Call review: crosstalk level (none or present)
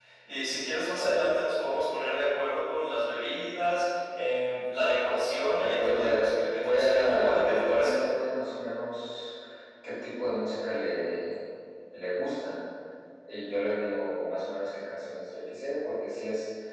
present